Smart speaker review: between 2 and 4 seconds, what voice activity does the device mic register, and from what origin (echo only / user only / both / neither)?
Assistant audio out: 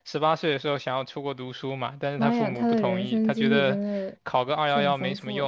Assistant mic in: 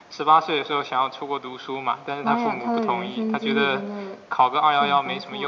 echo only